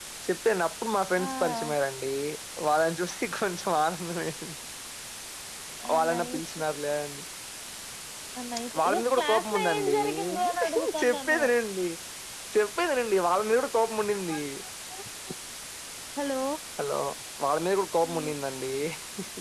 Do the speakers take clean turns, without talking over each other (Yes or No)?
No